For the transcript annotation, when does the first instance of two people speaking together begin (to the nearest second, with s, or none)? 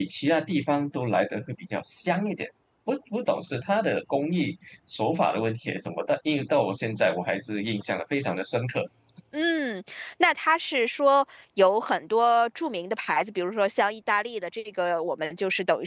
none